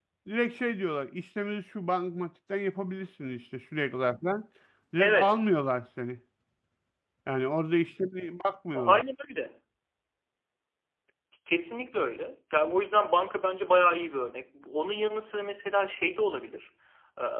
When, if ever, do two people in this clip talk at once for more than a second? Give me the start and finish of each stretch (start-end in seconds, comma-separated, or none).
none